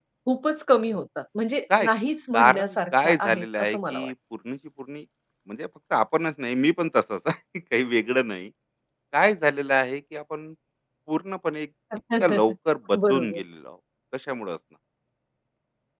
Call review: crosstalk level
present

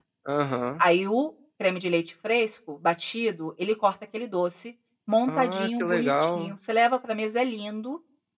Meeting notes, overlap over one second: present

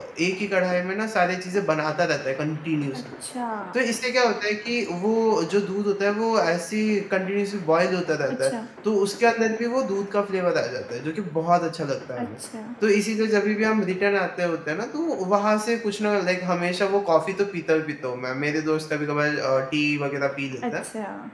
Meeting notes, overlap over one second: none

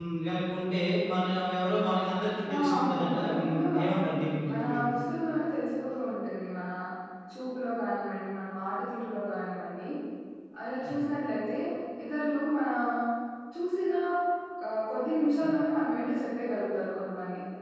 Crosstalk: present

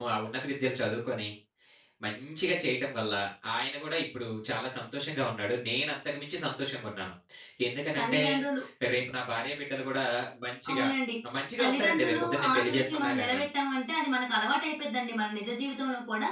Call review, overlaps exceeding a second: present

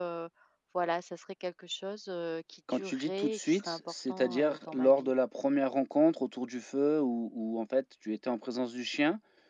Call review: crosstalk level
present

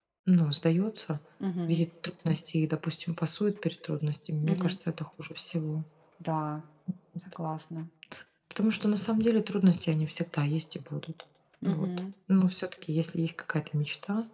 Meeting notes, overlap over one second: none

